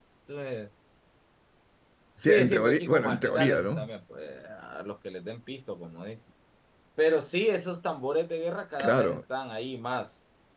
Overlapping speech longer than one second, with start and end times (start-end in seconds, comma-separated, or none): 2.3-3.9